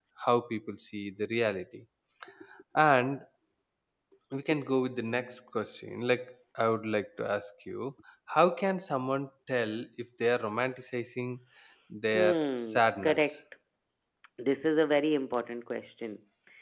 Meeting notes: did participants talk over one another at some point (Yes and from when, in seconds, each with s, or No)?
Yes, from 12.1 s